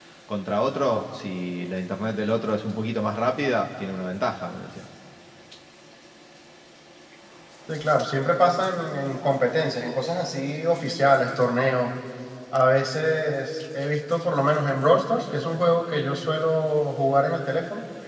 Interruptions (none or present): none